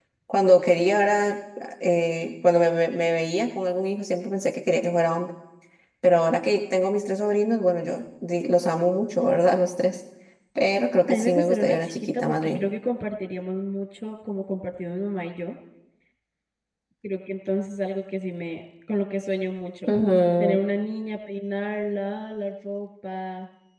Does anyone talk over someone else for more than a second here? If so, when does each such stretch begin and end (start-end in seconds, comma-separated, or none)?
11.1-12.6